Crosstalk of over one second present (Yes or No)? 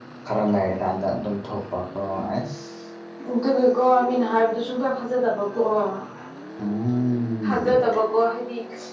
No